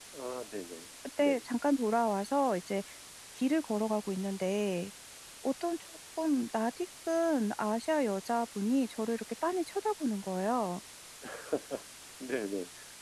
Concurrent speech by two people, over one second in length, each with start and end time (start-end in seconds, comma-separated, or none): none